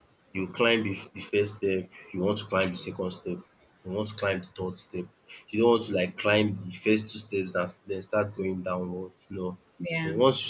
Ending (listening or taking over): listening